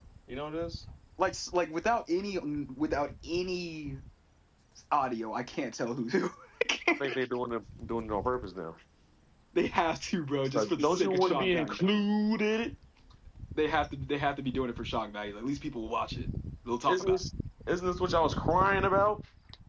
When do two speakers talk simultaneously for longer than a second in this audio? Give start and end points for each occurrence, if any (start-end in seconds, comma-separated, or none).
10.5-11.8